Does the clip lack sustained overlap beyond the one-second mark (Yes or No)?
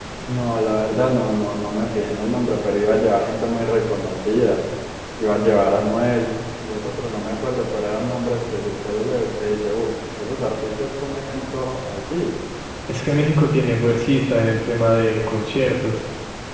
Yes